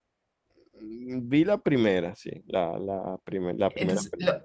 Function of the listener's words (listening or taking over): taking over